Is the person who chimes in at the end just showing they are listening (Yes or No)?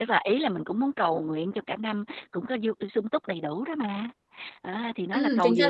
No